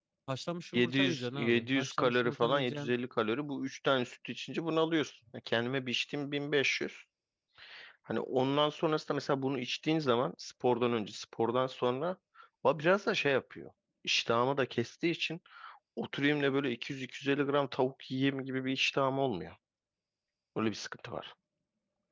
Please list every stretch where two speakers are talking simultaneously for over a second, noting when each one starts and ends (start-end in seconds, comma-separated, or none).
0.7-2.9